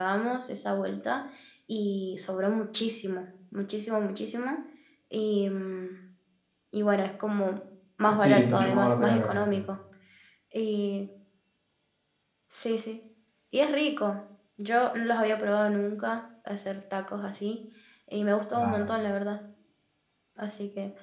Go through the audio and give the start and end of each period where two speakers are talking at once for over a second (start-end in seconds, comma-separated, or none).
8.1-9.6